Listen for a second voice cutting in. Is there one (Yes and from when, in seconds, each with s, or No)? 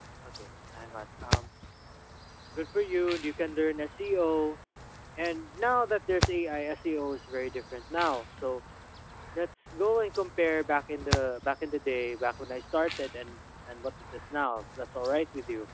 No